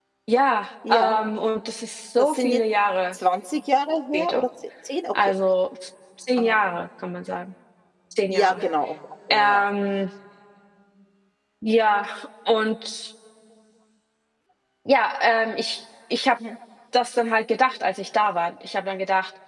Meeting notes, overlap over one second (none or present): none